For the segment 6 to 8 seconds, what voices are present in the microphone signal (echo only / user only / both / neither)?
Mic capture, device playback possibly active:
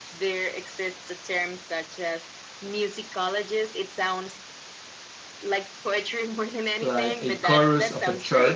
both